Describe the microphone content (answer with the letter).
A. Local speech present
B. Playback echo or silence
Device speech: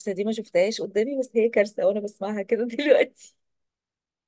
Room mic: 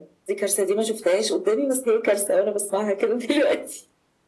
B